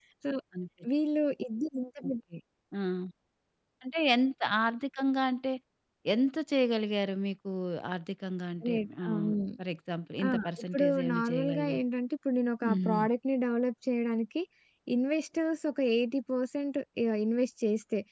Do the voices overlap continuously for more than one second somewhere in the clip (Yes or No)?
Yes